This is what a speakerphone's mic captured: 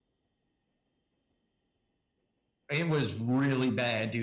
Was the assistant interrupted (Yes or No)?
Yes